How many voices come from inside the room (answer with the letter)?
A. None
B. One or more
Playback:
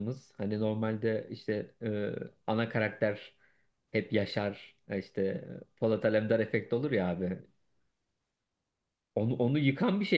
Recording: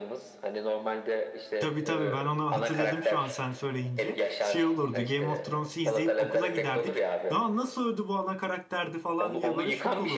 B